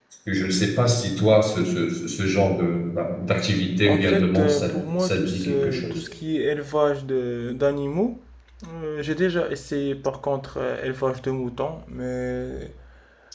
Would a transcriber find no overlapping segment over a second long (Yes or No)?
No